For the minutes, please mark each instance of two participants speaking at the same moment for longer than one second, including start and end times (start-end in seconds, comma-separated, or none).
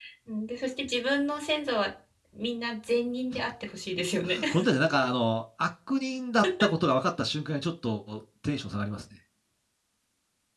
none